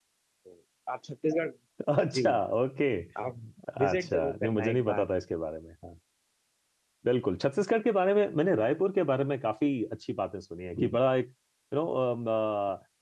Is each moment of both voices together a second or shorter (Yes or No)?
No